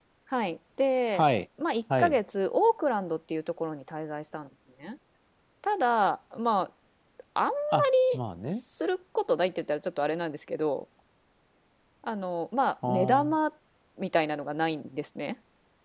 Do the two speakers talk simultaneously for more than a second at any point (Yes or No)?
No